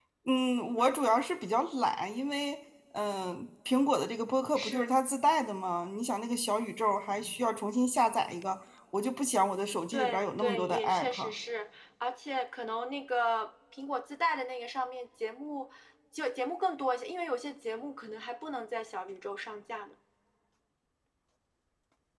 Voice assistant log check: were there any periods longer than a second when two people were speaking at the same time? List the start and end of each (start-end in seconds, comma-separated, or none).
9.9-11.3